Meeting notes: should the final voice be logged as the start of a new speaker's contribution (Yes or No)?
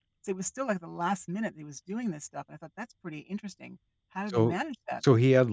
Yes